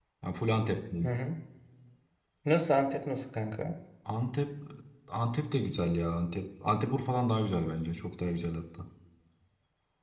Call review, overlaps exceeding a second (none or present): none